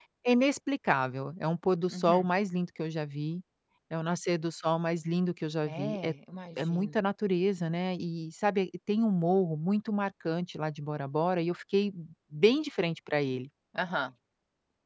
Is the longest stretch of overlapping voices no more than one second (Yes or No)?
Yes